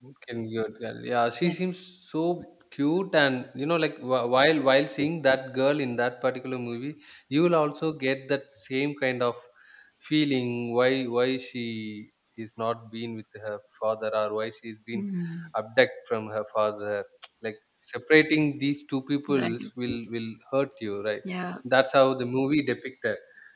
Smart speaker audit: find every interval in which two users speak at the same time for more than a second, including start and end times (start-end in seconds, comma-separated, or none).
none